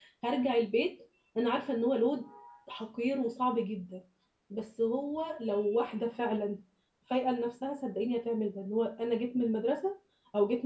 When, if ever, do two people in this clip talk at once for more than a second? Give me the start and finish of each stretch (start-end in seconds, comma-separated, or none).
none